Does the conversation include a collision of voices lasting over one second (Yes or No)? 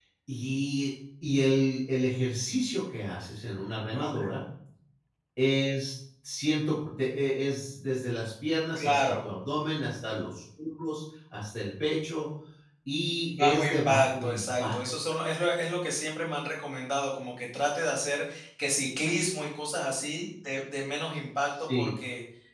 Yes